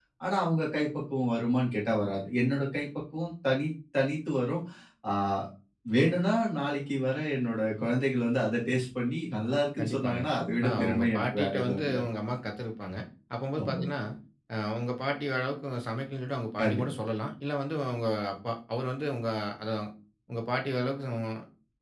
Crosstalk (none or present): present